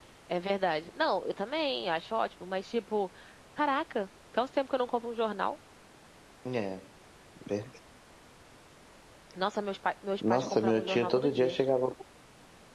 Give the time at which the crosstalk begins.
10 s

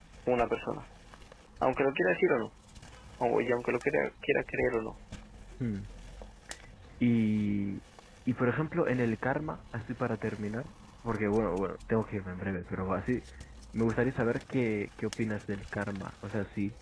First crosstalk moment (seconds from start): none

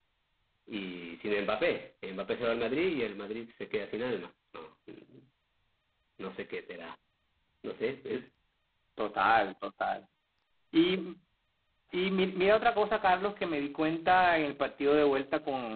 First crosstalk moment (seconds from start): none

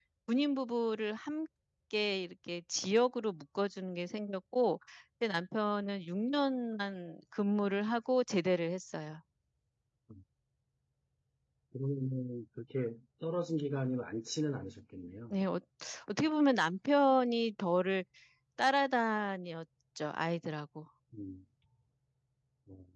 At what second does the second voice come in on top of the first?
none

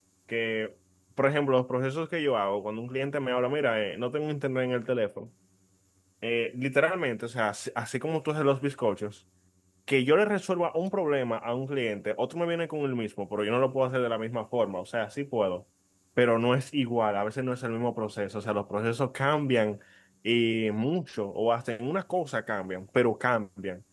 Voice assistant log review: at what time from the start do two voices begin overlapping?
none

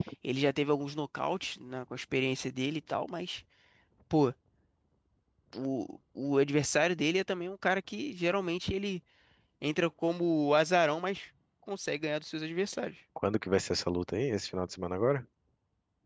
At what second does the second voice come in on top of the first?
none

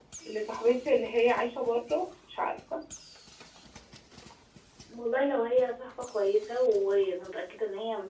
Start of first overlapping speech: none

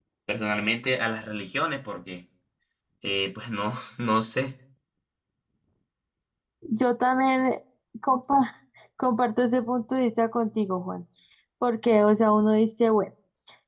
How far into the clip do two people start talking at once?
none

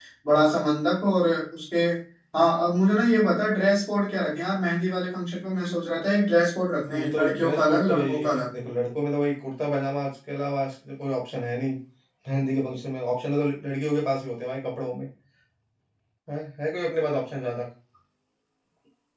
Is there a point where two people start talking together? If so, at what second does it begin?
7 s

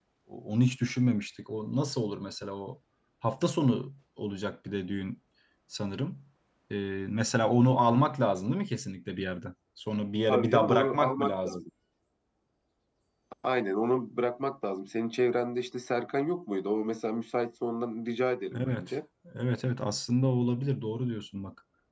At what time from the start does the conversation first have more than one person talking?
10 s

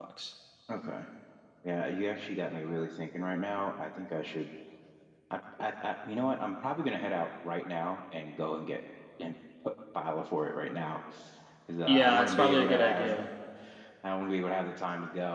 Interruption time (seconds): 12 s

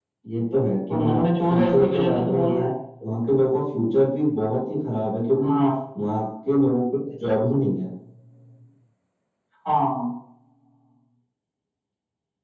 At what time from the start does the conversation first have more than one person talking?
1 s

